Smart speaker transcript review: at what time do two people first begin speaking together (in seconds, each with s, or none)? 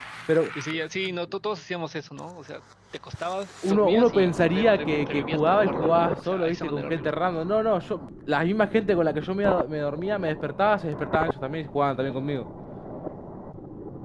3.6 s